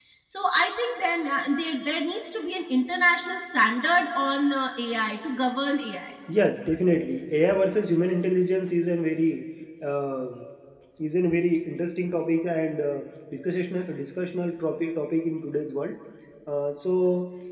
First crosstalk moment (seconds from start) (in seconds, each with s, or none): none